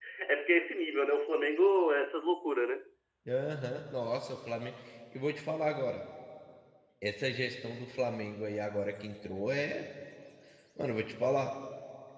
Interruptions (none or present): none